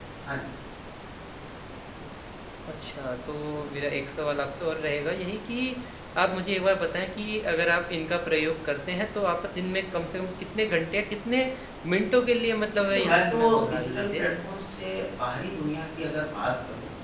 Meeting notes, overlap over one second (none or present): present